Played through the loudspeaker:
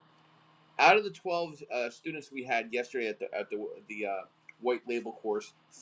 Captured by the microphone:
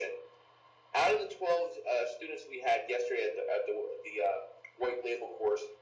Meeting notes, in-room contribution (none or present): none